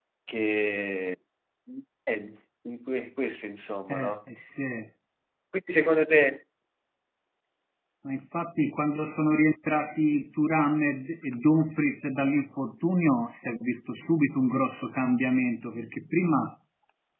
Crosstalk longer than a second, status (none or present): none